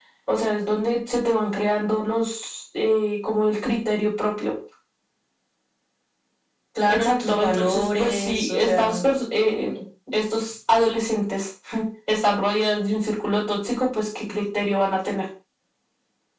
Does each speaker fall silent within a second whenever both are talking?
No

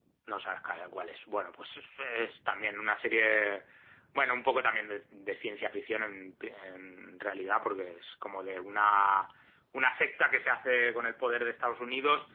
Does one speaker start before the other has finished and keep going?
No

